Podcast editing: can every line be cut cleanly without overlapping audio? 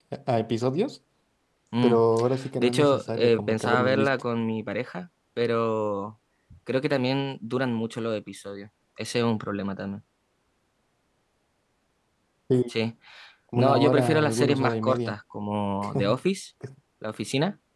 No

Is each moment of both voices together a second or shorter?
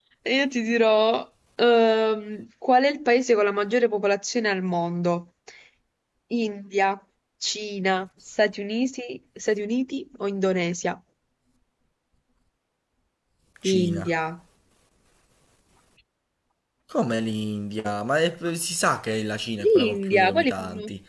No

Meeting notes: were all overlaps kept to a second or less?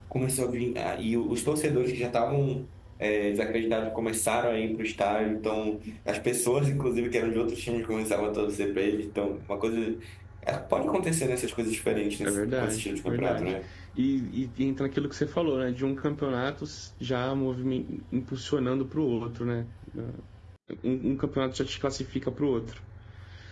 No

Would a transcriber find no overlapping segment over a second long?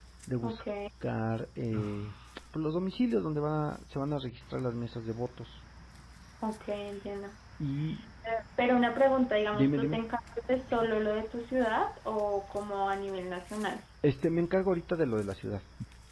Yes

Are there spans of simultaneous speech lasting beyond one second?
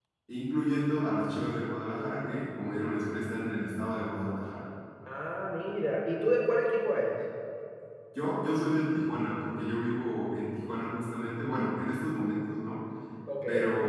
No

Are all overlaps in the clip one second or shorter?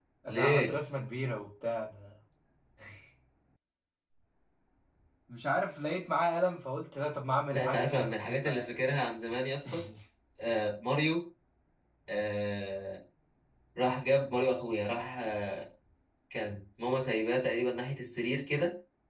No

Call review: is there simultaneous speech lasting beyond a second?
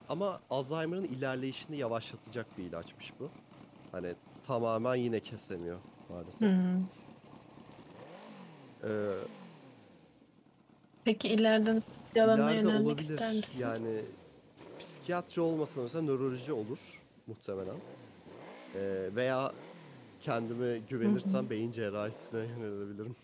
Yes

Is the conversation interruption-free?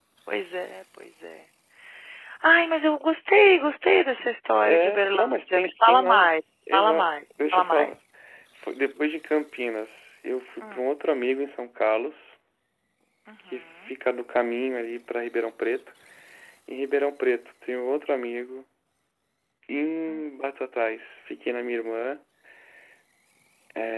No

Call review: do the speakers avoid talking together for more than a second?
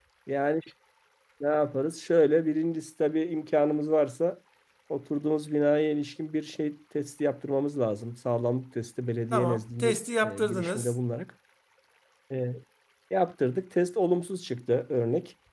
No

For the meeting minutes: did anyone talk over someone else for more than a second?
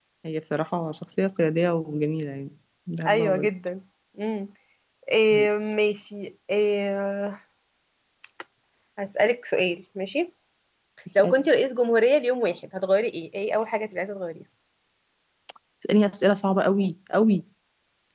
No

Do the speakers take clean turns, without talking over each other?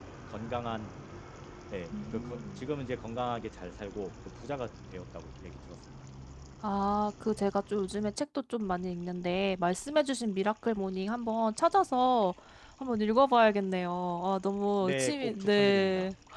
No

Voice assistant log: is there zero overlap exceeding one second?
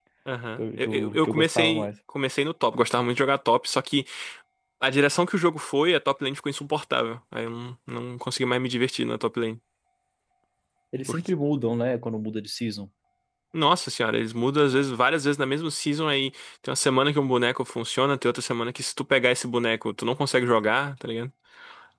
No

